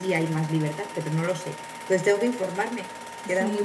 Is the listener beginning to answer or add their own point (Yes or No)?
Yes